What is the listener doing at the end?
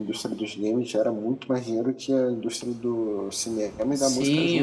taking over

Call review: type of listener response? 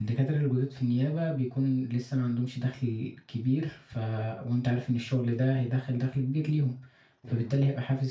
listening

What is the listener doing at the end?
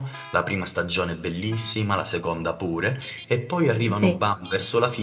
listening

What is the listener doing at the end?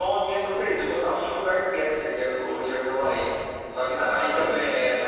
listening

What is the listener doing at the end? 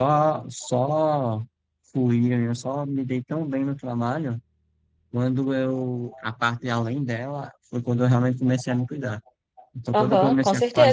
taking over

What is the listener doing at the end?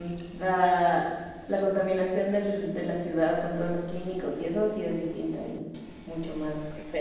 taking over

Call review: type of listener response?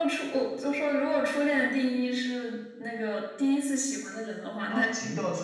taking over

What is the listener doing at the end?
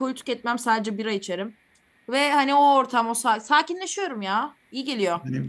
taking over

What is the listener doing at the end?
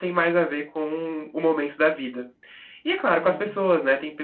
listening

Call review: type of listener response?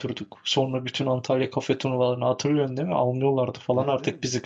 taking over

